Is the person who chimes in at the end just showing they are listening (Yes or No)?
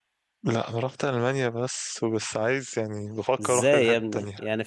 No